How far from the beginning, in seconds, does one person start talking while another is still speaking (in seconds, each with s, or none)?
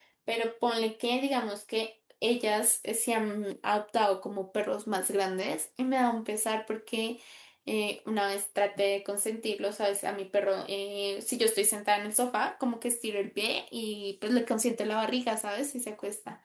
none